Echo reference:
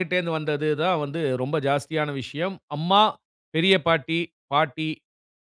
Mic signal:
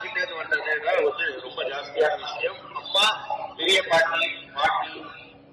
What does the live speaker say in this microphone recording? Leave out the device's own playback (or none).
none